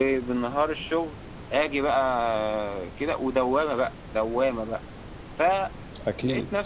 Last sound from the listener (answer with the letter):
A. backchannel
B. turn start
A